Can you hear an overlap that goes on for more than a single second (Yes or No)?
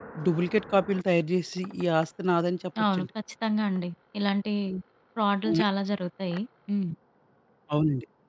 No